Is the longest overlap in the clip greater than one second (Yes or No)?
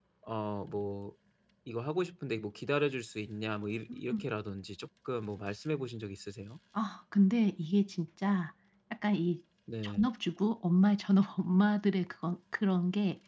No